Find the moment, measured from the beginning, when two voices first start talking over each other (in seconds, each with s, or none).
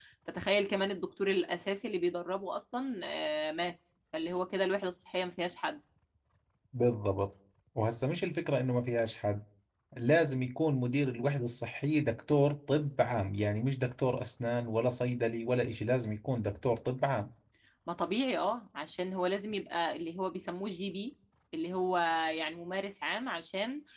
none